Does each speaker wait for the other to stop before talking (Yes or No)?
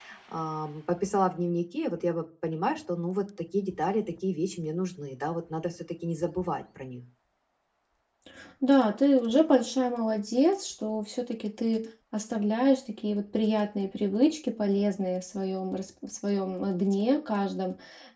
Yes